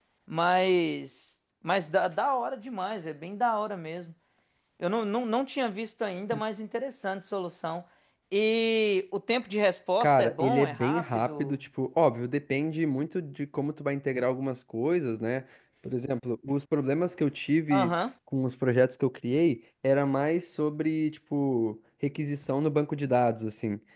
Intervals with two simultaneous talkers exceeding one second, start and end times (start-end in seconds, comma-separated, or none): 10.0-11.6